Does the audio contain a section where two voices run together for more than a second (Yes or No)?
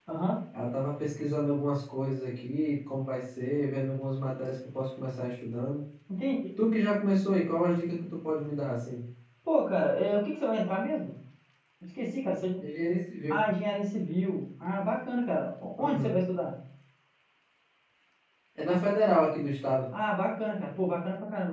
No